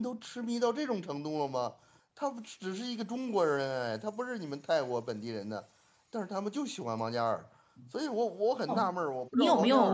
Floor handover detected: Yes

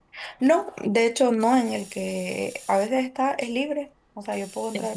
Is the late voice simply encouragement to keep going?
Yes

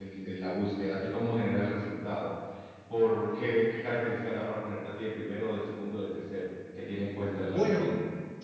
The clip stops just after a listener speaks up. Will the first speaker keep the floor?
No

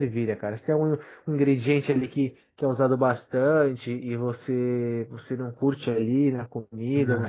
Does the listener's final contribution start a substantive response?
Yes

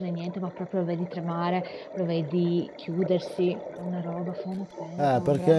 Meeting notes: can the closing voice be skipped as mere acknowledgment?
No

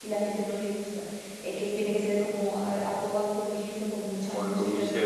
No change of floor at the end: No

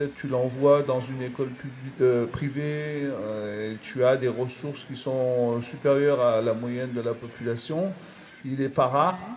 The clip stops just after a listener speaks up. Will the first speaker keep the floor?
Yes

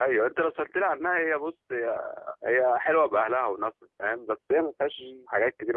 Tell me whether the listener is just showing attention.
Yes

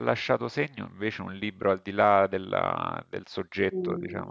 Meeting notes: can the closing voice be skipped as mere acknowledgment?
No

